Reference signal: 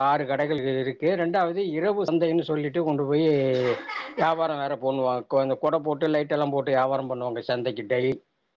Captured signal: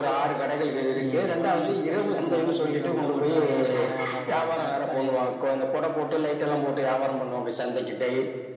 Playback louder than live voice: Yes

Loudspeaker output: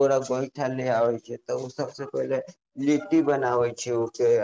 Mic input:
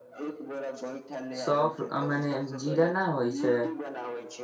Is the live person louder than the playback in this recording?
Yes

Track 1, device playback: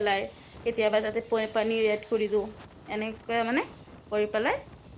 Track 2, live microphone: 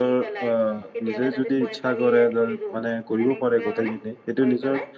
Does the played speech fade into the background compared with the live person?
Yes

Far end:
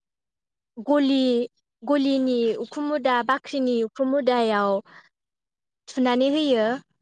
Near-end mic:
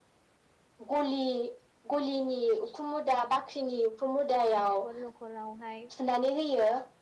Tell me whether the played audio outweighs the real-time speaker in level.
Yes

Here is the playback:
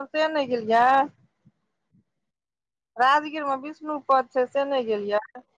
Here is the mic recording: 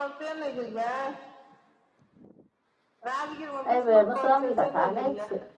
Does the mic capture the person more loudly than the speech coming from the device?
Yes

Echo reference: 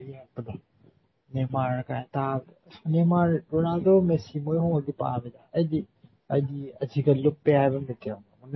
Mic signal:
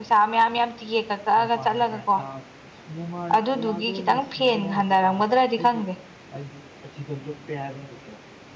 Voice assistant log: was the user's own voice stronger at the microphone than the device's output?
Yes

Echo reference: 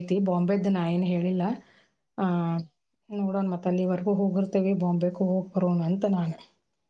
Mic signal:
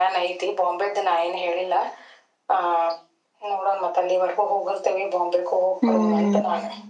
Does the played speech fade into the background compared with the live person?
Yes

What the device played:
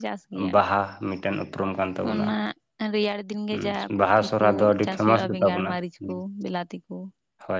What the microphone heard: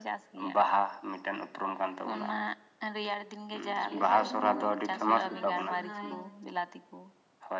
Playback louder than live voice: Yes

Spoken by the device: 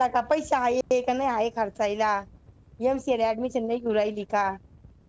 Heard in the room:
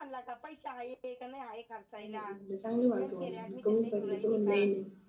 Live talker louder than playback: Yes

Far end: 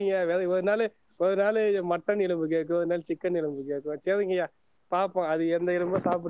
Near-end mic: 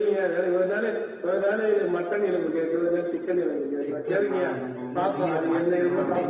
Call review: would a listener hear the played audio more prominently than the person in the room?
Yes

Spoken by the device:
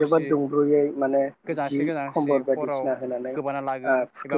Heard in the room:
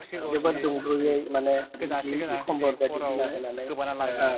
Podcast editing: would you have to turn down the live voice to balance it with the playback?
No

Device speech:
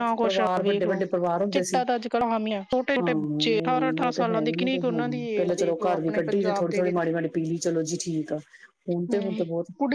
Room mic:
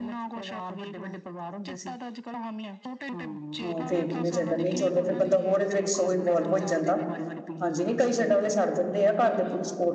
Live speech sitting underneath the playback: No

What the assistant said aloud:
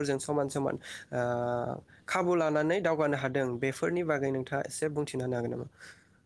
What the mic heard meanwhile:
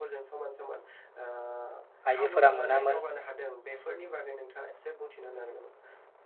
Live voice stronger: Yes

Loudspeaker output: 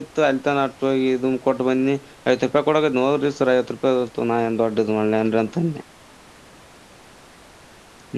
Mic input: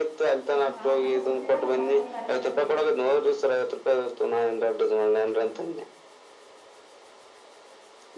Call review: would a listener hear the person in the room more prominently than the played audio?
No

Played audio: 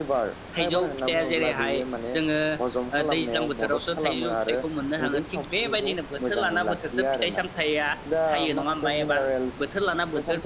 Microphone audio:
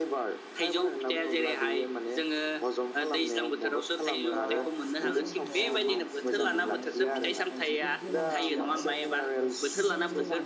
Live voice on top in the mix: No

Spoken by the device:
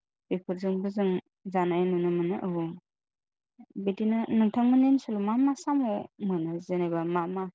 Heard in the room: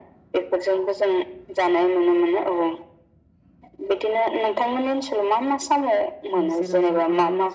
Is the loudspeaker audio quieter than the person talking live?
No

